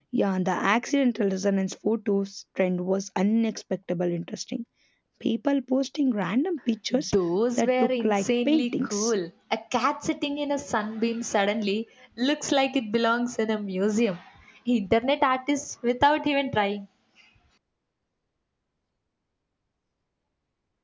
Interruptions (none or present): present